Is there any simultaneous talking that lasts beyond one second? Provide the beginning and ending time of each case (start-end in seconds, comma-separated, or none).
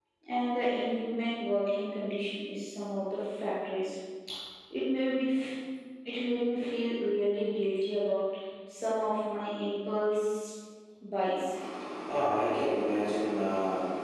none